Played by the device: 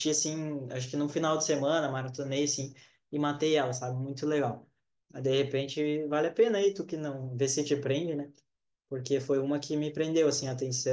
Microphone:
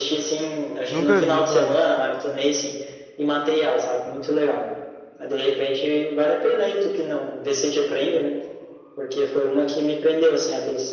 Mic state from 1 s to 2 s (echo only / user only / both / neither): both